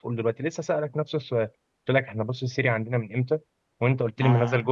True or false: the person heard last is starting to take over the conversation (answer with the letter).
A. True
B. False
B